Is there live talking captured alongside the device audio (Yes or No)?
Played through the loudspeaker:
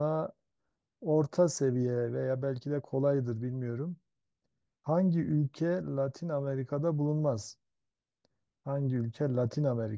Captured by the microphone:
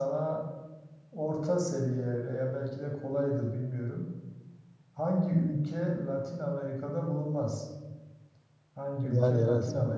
Yes